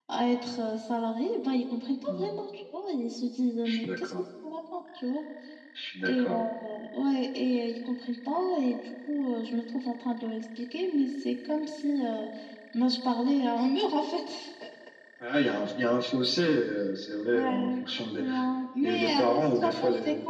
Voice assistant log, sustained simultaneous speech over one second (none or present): present